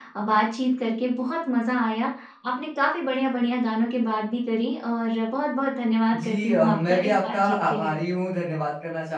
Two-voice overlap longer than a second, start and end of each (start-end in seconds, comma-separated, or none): 6.2-7.9